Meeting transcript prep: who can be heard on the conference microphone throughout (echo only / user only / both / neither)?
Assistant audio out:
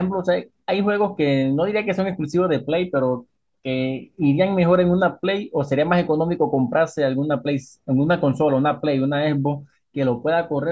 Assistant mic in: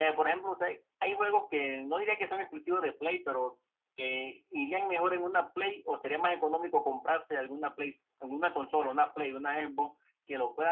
echo only